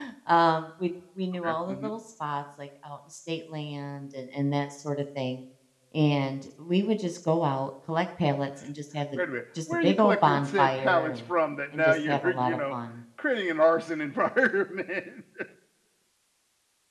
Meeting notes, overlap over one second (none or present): present